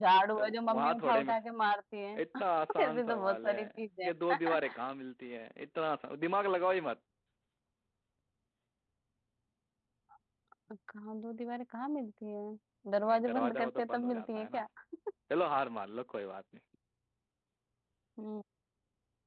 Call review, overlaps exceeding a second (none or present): present